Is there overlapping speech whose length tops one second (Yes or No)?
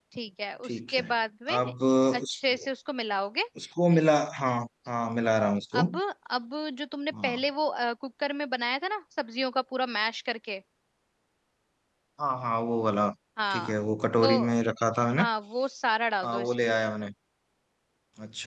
No